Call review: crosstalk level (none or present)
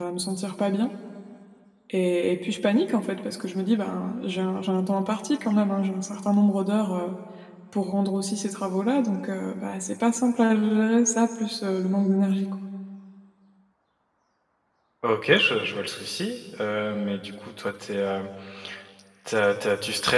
none